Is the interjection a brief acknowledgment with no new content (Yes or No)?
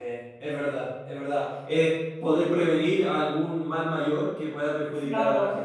No